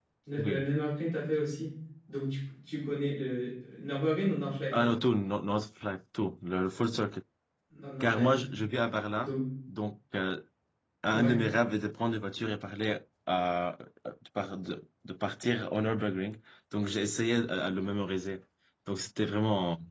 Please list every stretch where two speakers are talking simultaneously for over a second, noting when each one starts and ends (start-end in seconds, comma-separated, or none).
none